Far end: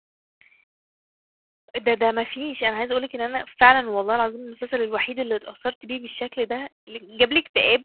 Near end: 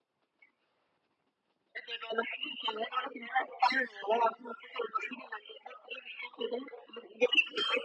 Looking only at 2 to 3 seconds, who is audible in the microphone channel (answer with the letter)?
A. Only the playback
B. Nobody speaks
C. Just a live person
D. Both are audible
A